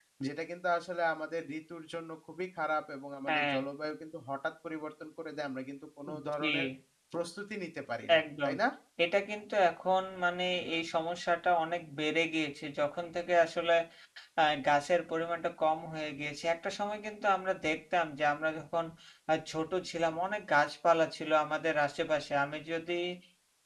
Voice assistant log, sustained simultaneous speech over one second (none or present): none